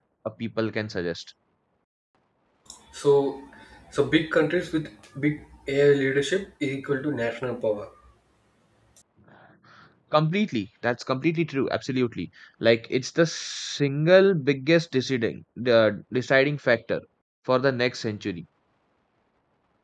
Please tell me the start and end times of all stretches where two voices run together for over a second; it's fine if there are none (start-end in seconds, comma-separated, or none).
none